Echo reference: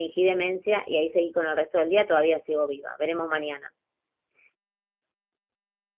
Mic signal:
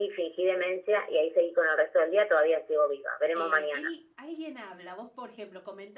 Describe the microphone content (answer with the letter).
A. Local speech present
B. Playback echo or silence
A